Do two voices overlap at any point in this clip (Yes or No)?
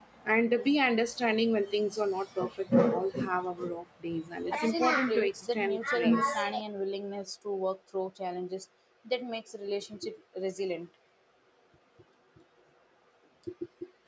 Yes